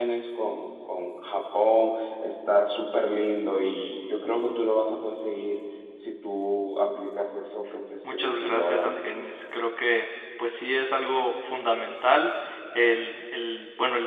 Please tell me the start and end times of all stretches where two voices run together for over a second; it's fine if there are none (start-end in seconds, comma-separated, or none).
8.0-9.2